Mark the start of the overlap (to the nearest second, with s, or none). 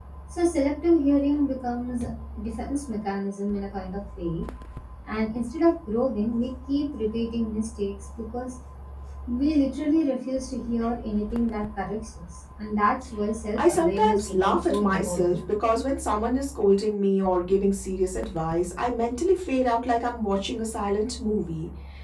14 s